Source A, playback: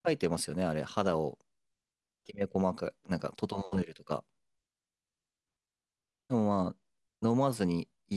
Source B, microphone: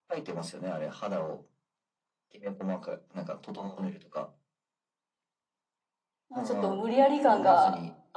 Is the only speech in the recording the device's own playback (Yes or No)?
No